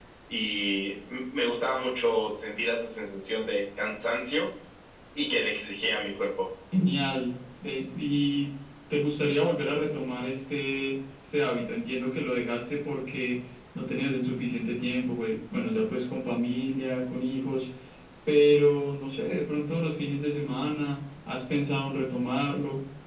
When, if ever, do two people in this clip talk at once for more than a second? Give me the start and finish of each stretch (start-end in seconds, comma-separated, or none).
none